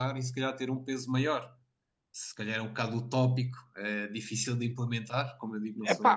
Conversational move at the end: listening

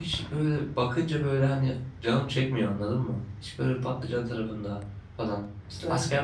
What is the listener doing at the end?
listening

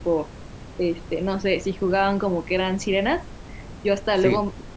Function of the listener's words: listening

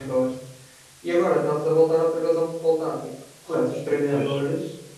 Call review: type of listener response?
listening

